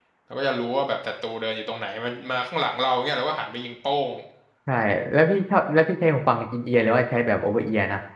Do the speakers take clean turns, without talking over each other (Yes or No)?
Yes